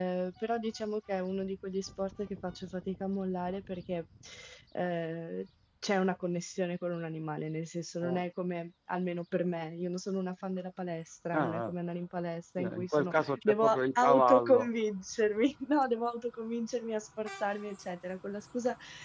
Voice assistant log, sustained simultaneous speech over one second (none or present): present